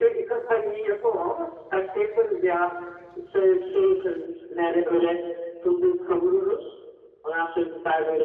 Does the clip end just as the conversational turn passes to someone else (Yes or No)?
No